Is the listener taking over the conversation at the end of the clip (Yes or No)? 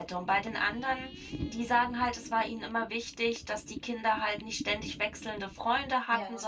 No